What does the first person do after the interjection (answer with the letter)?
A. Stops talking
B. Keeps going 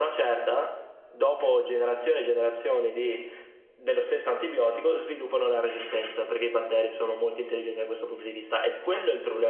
B